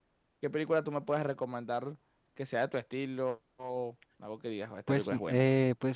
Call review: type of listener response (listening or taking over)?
taking over